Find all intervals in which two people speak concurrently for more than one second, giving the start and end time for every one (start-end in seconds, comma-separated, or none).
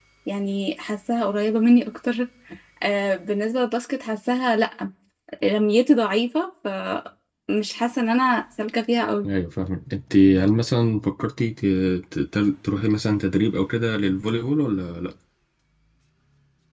none